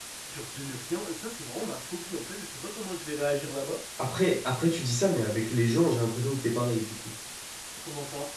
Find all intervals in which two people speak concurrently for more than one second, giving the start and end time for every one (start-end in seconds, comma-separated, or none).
none